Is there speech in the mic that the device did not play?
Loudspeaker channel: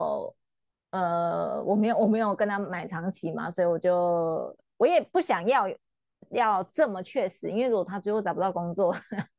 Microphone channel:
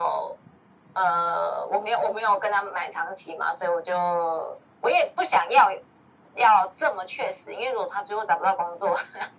No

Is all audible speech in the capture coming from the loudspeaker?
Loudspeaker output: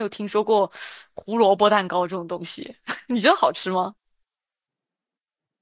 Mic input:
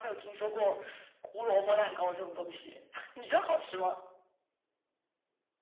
Yes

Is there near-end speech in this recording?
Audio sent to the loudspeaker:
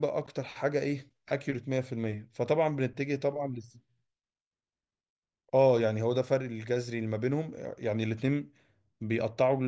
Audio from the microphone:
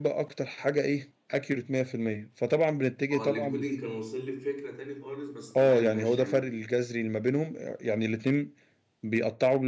Yes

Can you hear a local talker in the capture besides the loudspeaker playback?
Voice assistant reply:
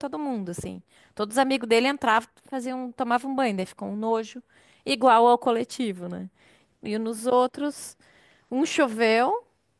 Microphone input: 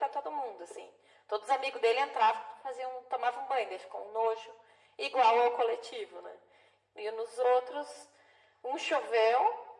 No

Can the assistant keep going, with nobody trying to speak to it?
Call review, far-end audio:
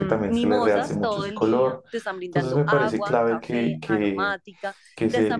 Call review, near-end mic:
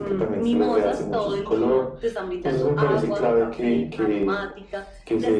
Yes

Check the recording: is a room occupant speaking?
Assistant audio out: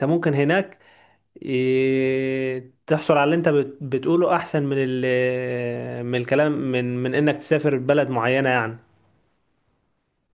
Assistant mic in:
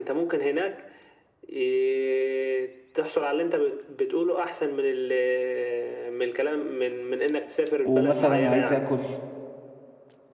Yes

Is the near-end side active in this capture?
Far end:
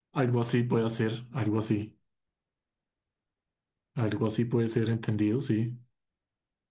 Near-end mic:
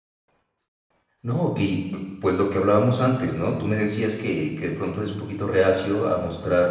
Yes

